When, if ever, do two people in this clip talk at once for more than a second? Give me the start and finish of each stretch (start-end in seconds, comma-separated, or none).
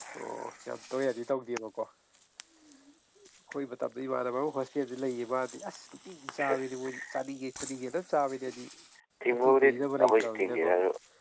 9.3-10.7